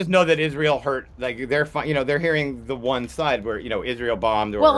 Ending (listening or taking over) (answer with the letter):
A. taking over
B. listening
A